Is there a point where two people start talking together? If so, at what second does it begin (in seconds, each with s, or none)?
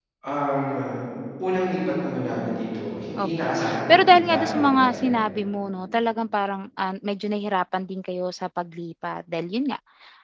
3.2 s